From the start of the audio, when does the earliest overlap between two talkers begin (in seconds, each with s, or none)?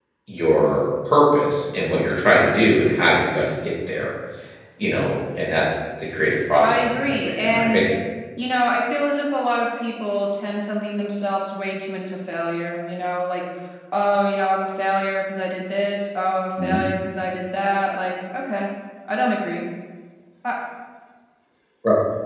6.6 s